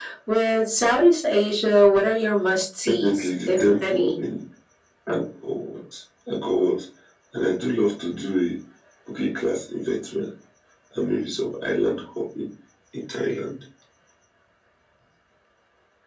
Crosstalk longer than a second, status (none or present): present